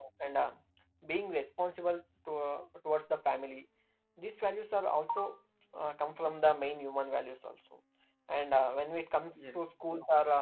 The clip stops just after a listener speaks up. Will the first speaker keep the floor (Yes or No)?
Yes